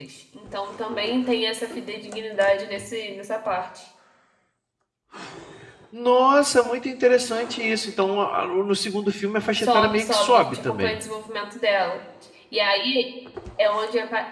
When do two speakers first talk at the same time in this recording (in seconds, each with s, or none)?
9.6 s